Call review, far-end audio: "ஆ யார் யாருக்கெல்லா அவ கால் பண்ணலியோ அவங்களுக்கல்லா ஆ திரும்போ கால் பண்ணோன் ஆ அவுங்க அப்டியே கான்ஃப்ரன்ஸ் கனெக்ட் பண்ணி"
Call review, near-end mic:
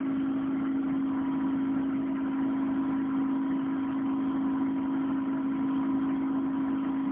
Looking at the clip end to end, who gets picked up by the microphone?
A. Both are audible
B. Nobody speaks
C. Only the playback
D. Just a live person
B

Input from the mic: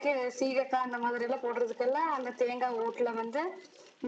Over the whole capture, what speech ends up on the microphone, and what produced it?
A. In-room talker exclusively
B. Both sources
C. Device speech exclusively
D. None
C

